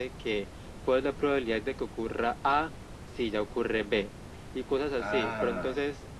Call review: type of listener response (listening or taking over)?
listening